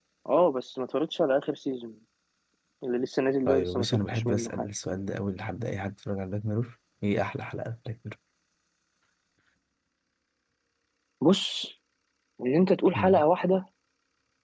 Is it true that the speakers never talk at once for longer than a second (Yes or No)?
No